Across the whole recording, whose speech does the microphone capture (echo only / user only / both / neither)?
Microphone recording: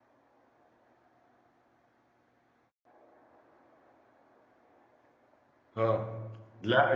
user only